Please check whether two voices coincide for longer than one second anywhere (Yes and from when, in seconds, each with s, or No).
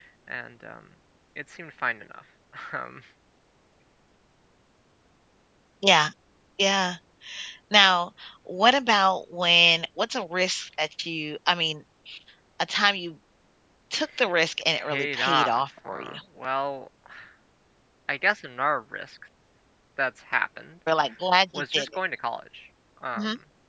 Yes, from 14.8 s